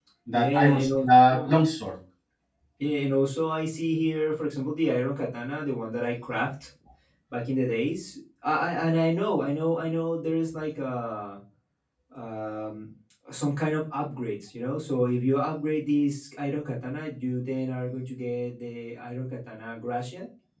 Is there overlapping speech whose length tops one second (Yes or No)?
Yes